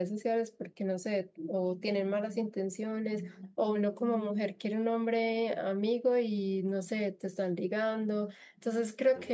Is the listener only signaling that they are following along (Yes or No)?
Yes